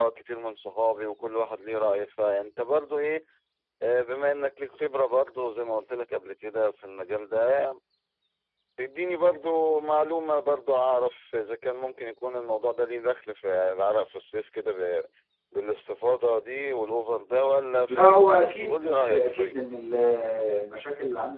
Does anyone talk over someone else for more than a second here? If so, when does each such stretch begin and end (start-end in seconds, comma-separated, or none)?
17.9-19.6